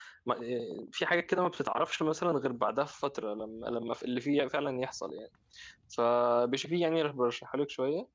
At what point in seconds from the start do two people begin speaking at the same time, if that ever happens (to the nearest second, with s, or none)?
none